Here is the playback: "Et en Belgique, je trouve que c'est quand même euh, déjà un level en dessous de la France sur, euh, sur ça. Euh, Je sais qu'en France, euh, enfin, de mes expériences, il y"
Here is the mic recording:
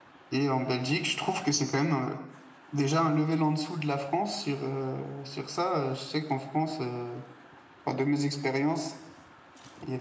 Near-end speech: none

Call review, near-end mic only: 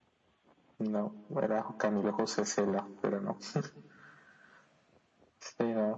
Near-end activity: none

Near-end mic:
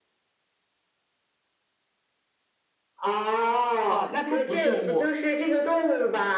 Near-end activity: present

